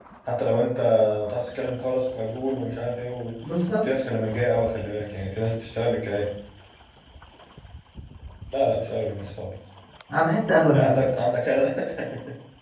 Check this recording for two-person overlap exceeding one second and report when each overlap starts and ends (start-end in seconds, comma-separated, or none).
none